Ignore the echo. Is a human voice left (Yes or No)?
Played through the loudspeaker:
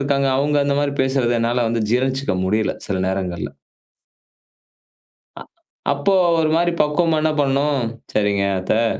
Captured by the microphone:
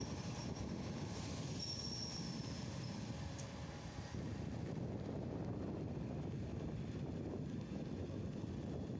No